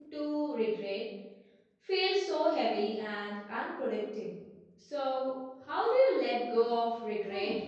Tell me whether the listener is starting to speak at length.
Yes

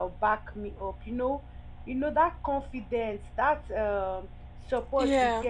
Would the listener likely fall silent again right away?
Yes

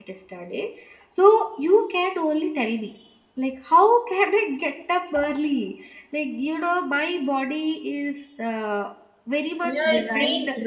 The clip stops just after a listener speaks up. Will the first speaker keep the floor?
No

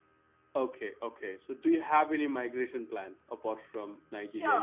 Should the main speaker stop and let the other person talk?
Yes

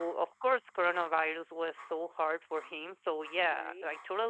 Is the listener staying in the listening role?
Yes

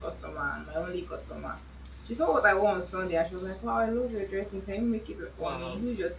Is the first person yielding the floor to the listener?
No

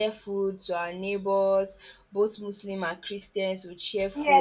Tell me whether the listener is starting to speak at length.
Yes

